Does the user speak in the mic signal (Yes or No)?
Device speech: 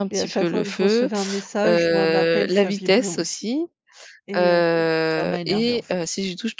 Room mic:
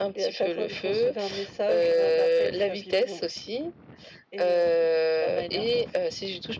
No